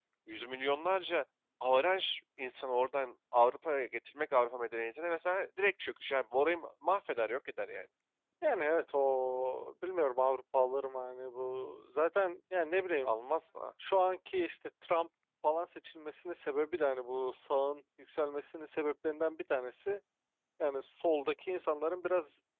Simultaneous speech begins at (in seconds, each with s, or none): none